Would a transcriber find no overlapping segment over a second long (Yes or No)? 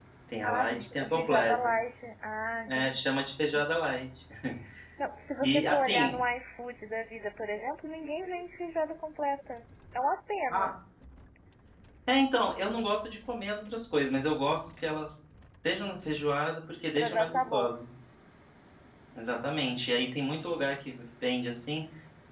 No